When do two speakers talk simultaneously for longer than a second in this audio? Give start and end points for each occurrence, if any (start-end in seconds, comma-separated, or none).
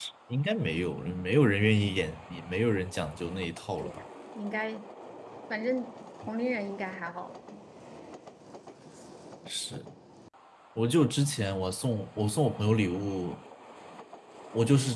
none